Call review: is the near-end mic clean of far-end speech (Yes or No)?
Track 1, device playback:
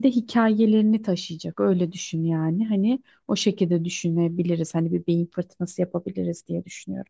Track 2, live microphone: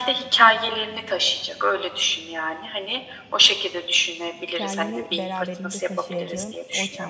No